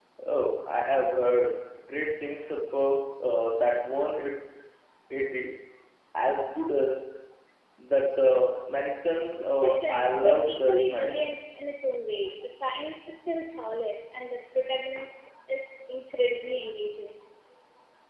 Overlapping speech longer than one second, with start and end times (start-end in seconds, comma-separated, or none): 9.4-11.4